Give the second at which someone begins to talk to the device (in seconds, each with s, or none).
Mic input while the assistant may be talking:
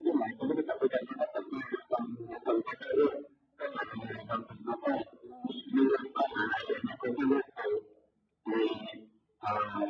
none